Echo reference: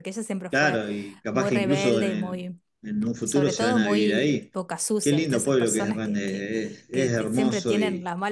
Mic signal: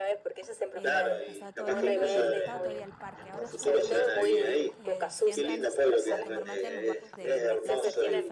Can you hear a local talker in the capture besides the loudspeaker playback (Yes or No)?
Yes